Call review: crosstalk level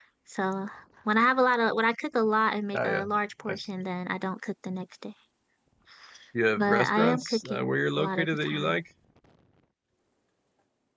present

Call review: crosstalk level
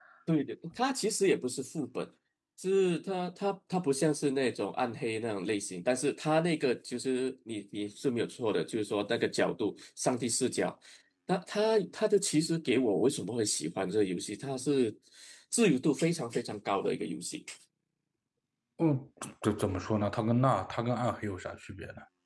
none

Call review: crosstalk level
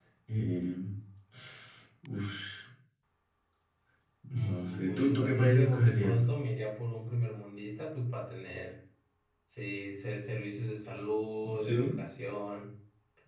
present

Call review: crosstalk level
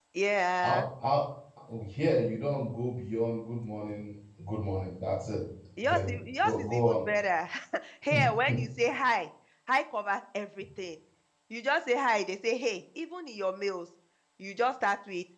present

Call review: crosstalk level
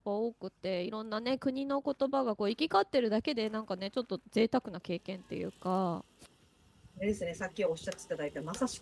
none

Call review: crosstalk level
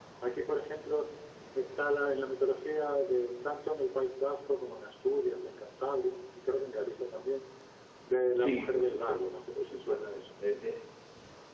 present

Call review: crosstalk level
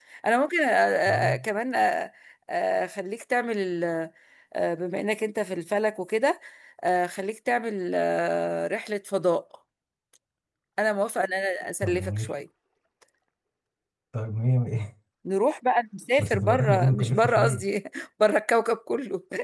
present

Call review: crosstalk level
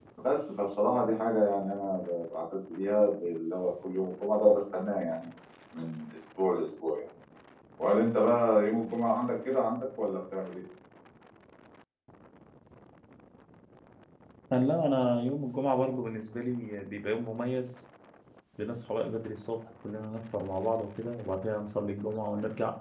none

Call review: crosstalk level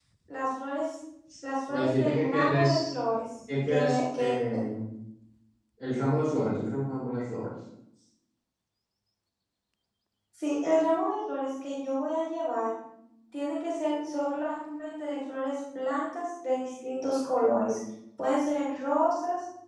present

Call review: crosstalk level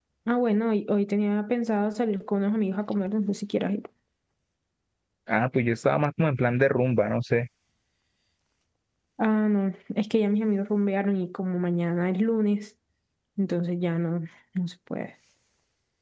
none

